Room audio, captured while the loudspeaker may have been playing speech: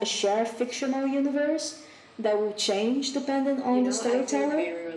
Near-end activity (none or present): present